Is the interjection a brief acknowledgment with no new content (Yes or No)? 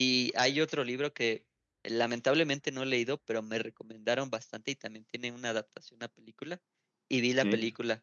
Yes